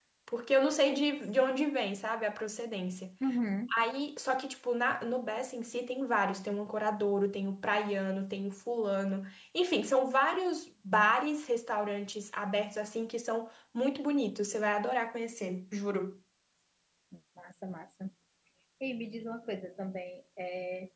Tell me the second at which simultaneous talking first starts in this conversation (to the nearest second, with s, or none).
none